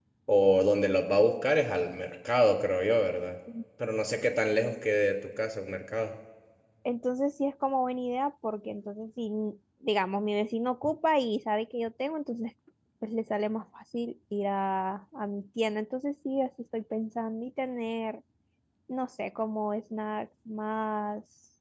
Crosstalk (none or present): none